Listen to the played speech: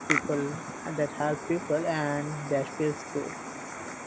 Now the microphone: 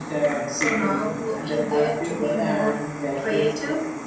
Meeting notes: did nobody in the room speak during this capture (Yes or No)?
No